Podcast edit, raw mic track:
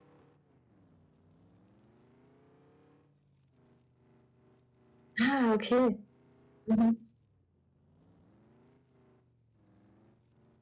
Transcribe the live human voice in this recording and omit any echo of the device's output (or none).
Ah, okay. Mhm.